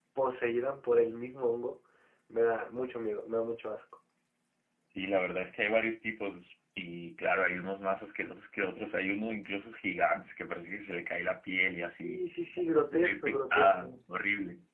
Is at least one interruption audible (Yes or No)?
Yes